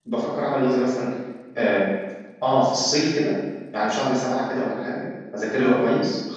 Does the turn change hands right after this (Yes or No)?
No